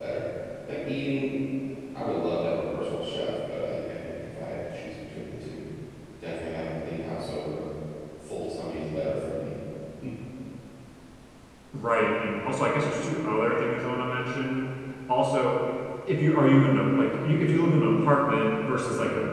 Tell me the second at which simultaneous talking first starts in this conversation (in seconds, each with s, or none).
none